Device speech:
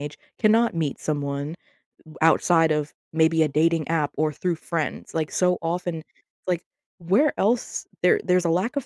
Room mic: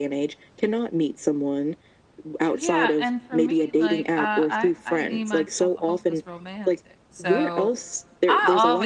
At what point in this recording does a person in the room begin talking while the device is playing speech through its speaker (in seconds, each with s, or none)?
2.5 s